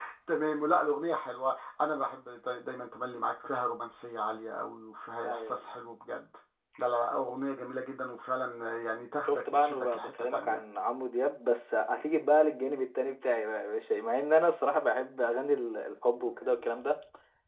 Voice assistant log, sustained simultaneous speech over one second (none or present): present